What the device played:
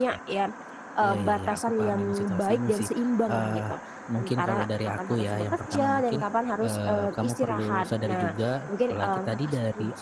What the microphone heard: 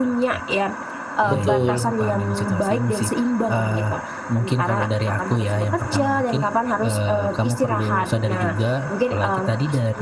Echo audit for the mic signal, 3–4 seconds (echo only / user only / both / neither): echo only